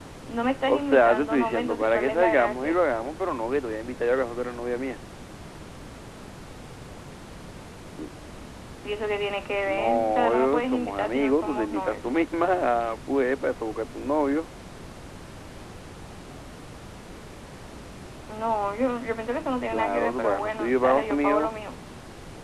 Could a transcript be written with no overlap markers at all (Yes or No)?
No